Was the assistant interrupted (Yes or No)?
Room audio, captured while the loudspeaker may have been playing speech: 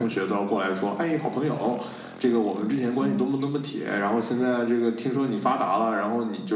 Yes